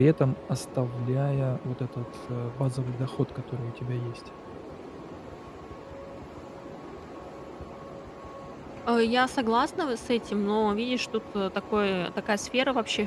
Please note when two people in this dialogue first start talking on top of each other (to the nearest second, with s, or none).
none